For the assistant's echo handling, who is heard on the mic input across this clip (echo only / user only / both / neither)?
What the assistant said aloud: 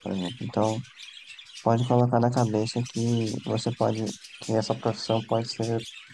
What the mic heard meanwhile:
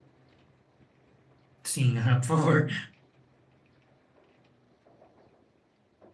user only